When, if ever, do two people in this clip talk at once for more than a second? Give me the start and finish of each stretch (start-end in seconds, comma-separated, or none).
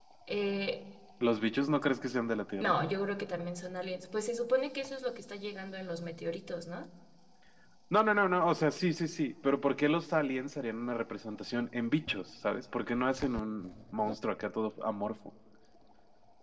none